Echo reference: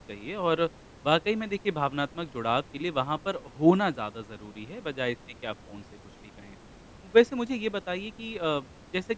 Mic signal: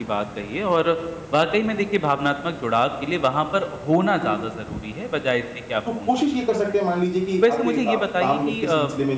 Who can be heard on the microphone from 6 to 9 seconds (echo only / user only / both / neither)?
both